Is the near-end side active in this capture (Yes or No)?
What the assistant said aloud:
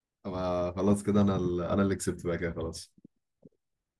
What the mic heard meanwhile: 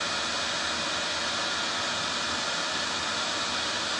No